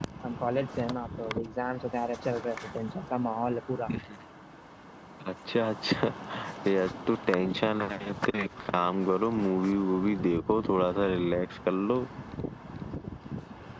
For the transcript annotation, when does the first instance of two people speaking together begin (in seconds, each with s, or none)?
none